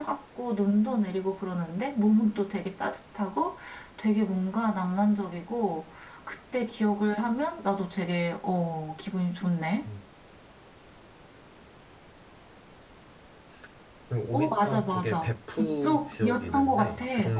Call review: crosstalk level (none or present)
present